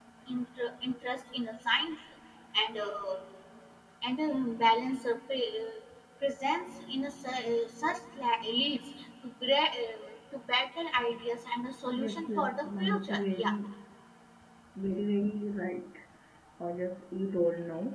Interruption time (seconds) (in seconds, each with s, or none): 12.0 s